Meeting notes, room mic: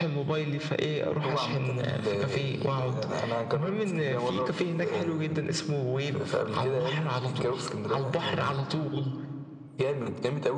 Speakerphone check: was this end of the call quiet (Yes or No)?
Yes